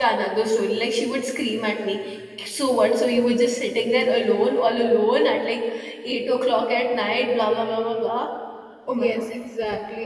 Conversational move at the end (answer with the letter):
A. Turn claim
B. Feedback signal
A